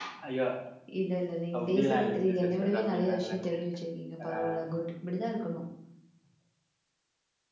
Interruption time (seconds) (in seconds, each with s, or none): 1.6 s